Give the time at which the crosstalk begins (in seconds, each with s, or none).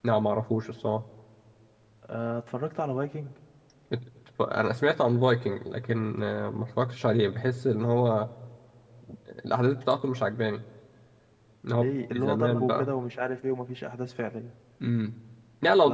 11.7 s